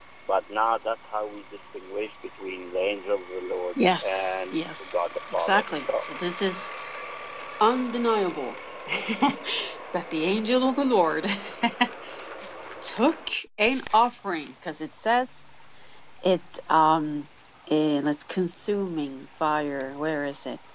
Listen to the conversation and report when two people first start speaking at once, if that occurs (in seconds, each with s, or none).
3.8 s